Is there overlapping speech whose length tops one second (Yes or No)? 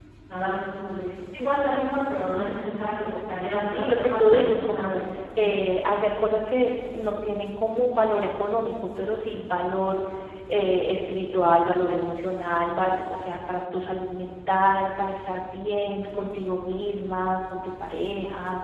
Yes